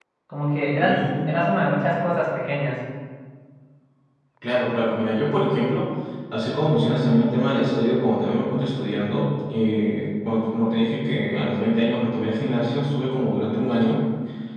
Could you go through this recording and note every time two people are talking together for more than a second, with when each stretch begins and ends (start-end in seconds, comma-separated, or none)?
0.7-1.9